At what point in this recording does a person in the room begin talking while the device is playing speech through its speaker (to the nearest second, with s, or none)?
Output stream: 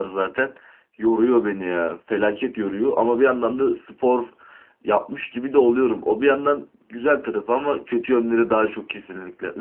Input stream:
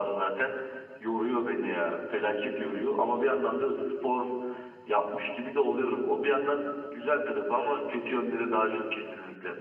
none